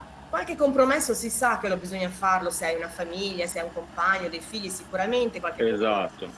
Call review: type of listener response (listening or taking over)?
listening